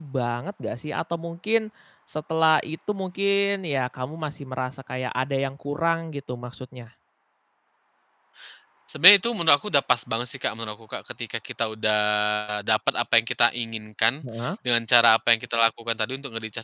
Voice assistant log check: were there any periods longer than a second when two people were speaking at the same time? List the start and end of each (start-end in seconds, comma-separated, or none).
none